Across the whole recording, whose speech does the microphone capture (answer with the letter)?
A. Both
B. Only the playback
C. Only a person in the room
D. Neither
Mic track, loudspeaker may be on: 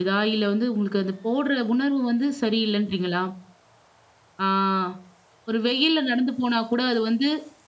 C